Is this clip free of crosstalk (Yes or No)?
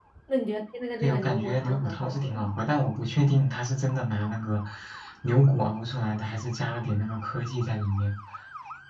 No